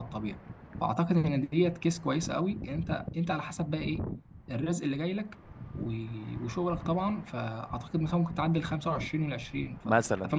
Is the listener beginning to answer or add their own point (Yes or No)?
Yes